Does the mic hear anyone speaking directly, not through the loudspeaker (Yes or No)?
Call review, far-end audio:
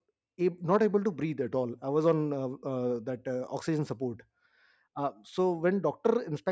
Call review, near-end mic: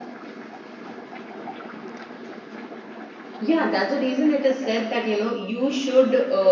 Yes